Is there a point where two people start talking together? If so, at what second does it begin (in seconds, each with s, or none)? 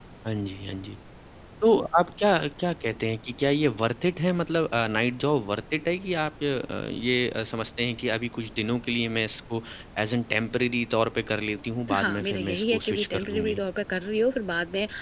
11.9 s